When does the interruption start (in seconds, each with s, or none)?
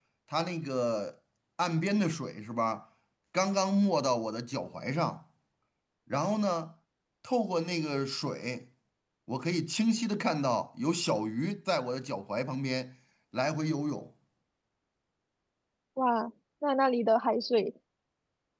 none